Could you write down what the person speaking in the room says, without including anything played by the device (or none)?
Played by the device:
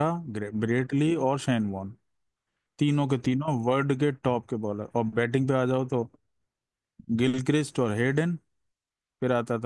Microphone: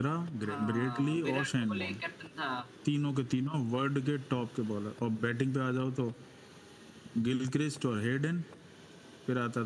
हाँ विराट कोहली कैप्टन था